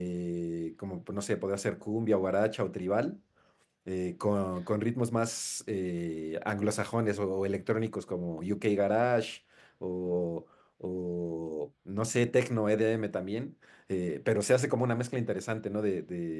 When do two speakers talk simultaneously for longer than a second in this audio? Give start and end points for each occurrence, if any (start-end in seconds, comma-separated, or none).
none